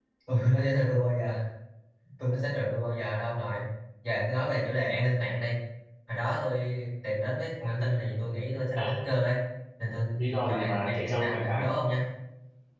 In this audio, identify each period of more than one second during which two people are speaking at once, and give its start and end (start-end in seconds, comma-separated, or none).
10.4-11.6